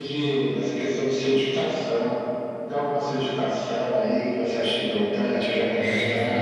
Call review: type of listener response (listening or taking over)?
taking over